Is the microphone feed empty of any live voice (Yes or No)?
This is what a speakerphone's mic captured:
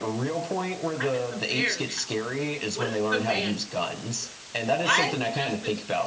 No